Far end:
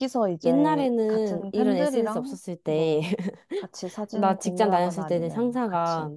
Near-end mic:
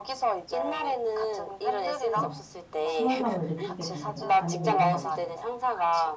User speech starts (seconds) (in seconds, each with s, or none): 2.1 s